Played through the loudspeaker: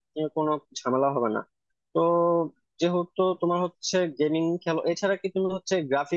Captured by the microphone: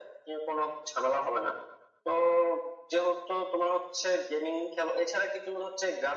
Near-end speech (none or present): none